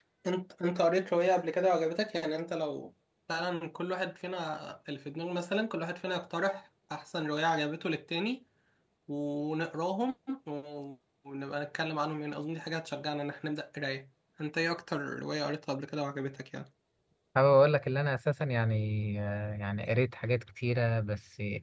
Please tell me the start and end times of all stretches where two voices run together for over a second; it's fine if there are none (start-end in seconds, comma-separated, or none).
none